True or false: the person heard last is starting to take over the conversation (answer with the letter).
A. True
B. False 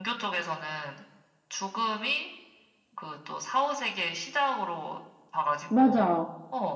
B